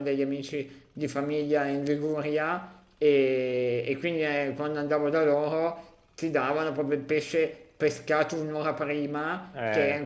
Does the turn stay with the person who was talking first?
Yes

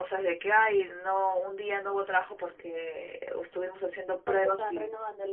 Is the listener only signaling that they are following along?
No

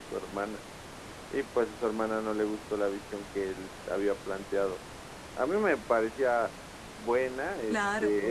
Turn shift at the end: No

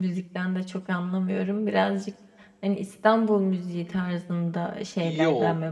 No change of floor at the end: No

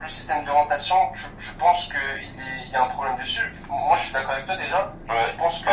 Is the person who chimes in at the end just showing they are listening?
No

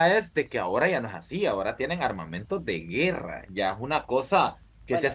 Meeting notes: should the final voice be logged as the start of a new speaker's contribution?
No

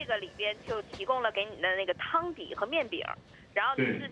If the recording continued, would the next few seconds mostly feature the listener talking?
No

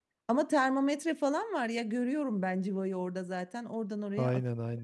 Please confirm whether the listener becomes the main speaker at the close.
Yes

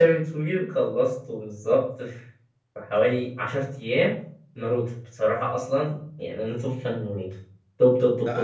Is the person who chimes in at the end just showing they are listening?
No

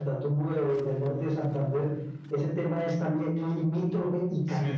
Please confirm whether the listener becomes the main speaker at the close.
Yes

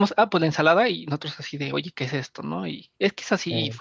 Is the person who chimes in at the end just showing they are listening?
Yes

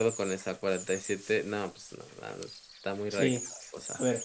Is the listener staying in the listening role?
No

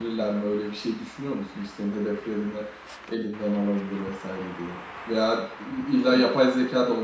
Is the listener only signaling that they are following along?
Yes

